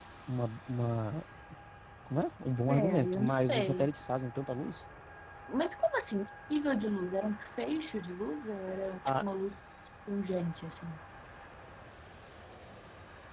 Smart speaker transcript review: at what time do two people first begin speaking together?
2.7 s

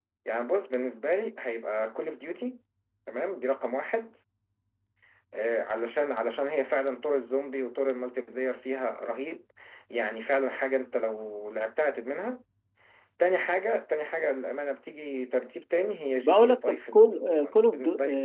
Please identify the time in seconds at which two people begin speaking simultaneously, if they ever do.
16.2 s

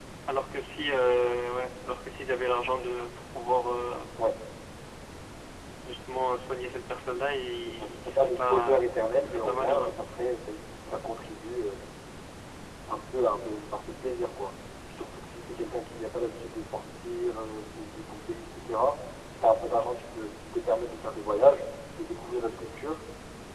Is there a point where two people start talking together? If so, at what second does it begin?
7.7 s

